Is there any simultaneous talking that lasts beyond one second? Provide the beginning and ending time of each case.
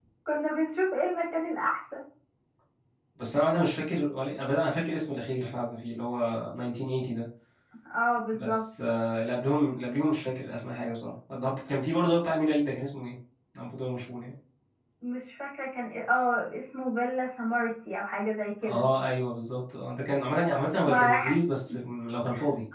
none

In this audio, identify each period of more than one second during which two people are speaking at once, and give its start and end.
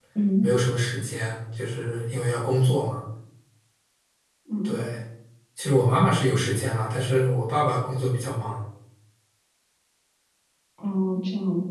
none

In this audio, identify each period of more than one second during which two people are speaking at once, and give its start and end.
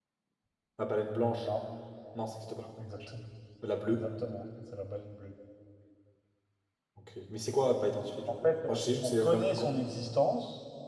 8.4-9.7

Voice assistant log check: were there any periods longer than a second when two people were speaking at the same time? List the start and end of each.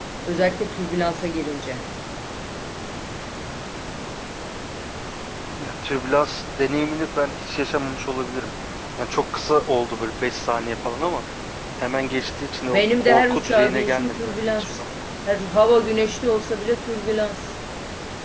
12.7-14.8

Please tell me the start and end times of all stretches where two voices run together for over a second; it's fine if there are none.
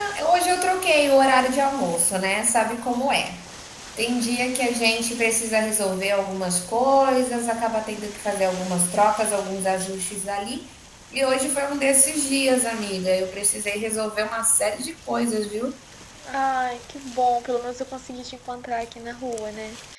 none

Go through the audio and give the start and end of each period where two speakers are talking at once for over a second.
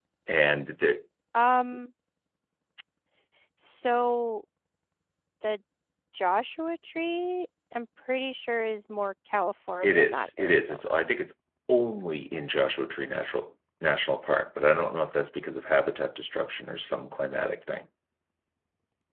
9.8-11.1

